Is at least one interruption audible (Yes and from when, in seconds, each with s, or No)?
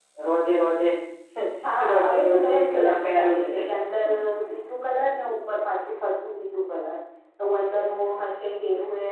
Yes, from 1.9 s